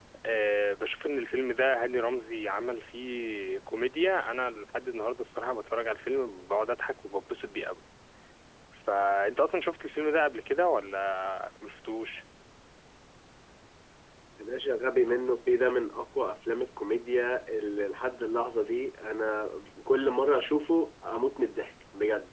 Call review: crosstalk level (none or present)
none